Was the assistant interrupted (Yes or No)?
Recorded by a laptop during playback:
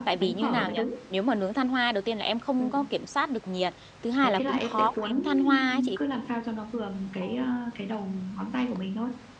Yes